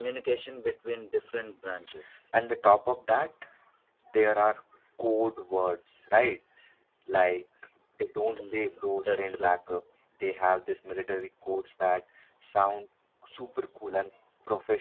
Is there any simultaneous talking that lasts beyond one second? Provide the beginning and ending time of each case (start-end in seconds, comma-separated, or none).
8.2-9.6